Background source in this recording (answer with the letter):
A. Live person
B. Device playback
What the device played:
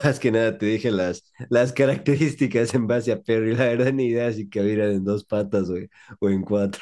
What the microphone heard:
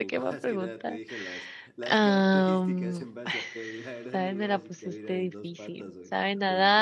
B